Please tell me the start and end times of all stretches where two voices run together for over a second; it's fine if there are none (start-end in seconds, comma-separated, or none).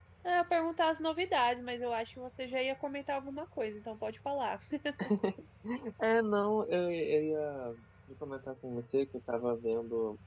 none